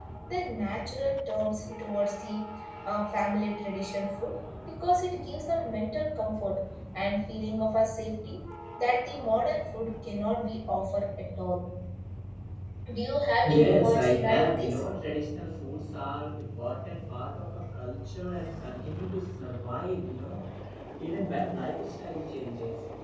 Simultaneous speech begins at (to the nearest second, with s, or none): 13 s